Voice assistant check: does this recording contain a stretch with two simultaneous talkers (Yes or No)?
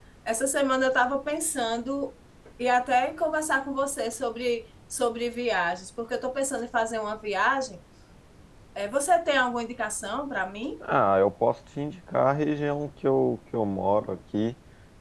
No